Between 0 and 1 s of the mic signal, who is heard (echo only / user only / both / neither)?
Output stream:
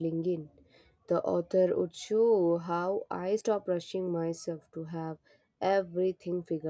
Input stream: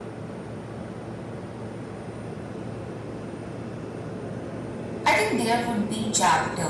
neither